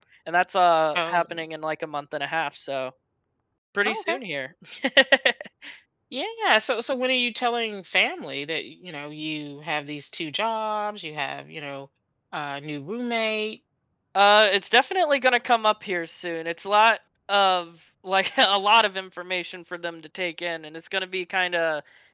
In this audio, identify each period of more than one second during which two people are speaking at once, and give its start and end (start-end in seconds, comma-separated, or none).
none